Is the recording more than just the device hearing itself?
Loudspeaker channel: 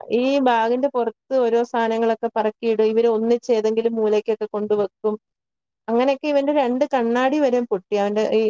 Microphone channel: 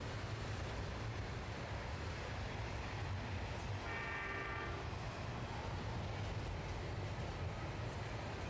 No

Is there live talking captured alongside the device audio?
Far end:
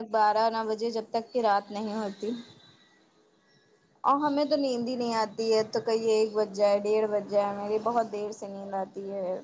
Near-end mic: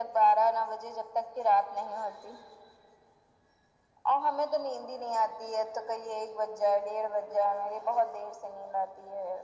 No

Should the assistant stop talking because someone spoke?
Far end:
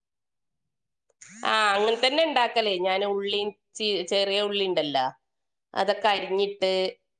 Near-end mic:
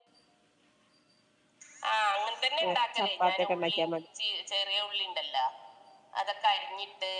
Yes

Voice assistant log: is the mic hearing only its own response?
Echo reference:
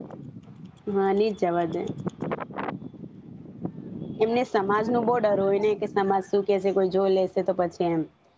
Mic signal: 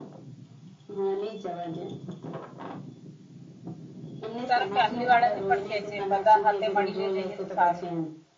No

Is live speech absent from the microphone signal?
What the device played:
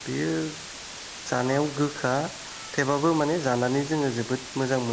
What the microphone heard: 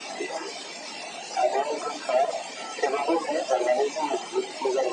Yes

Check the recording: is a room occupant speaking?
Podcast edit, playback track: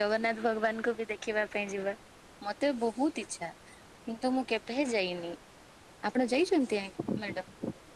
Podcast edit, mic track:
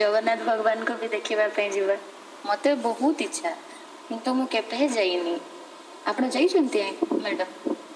No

